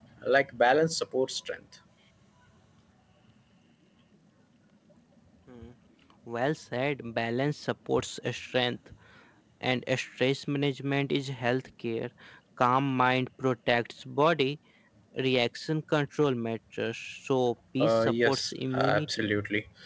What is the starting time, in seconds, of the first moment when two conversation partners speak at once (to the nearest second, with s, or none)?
18 s